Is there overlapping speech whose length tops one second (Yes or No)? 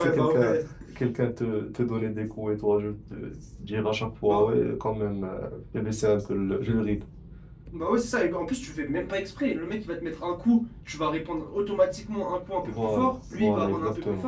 Yes